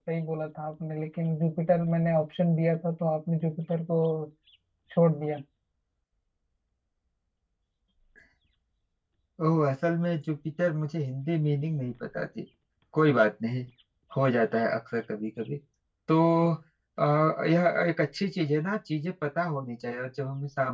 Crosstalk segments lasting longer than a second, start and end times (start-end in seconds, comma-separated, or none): none